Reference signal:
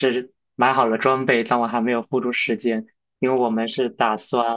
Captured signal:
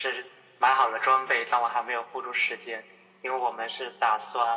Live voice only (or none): none